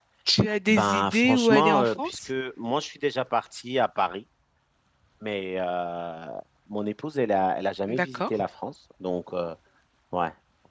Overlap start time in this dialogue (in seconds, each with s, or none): 0.7 s